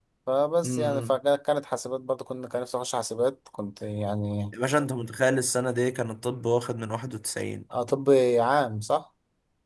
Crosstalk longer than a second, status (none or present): none